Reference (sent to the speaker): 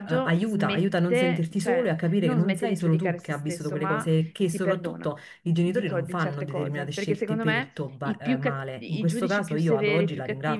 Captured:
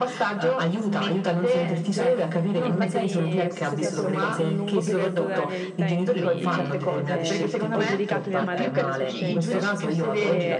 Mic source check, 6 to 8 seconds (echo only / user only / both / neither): both